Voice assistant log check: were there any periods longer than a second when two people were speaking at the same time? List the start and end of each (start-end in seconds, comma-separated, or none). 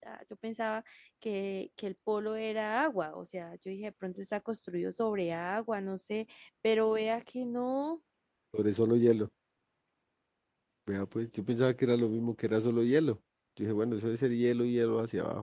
none